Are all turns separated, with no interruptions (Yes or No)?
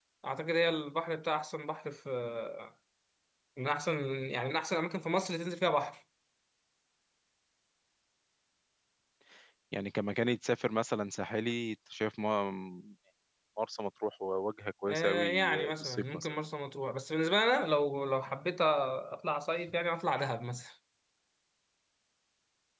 No